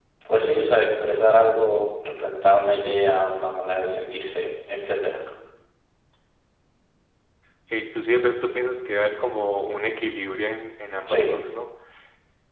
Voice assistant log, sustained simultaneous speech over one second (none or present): none